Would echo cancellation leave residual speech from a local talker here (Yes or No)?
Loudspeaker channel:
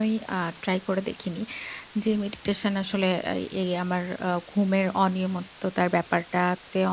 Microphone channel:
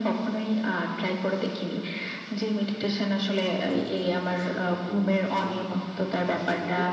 Yes